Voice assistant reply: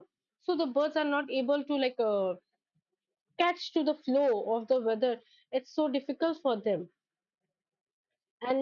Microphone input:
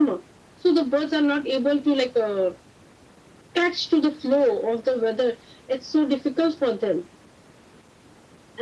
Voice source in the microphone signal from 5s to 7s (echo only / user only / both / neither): echo only